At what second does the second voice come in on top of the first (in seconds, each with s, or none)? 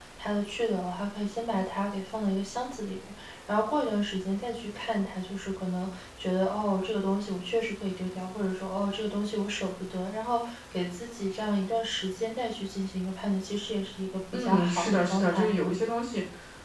14.3 s